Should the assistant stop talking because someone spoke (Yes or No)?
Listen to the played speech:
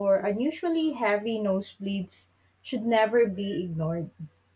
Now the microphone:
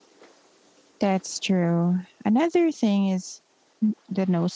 Yes